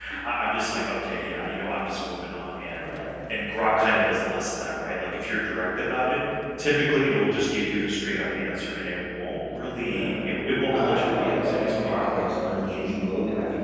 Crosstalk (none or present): present